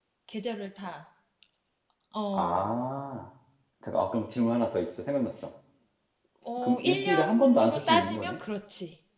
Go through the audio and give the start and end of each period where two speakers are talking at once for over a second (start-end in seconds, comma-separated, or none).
6.6-8.4